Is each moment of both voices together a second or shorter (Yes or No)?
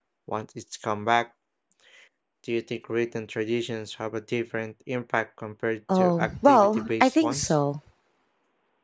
No